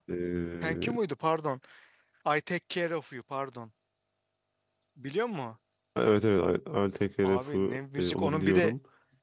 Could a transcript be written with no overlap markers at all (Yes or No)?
No